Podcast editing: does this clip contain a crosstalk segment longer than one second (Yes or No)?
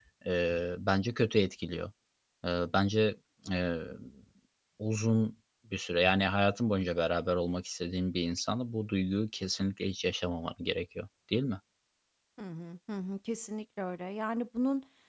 No